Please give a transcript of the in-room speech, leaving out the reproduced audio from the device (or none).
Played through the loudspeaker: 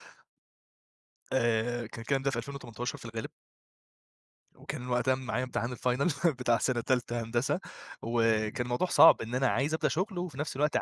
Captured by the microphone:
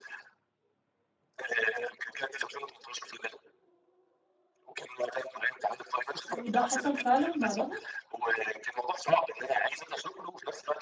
وده حصل فعلًا بعدها؟